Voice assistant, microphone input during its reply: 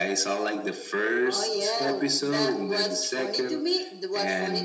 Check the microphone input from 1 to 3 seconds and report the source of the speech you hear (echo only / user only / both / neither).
echo only